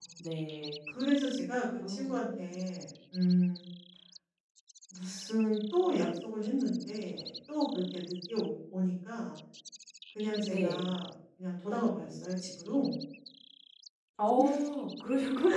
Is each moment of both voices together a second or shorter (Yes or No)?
Yes